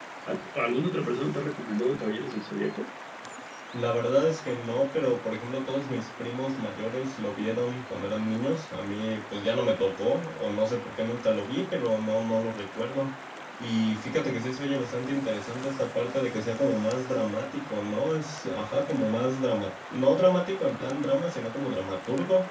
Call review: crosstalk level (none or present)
none